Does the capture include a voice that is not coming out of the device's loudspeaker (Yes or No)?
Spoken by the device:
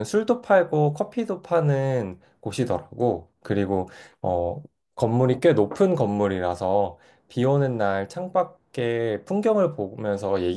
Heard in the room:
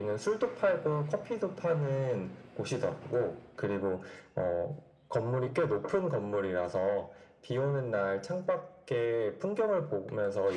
No